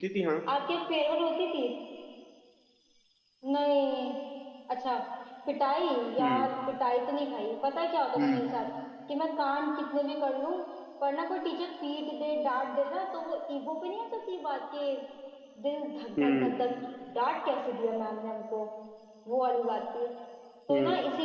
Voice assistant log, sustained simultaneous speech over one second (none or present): none